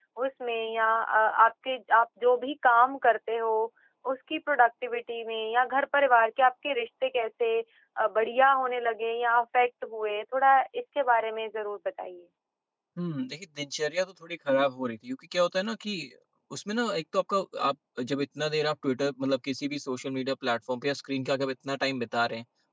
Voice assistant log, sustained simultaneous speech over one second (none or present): none